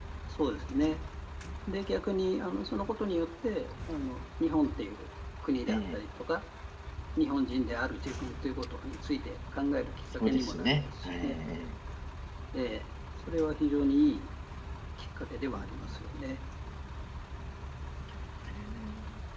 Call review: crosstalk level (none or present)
present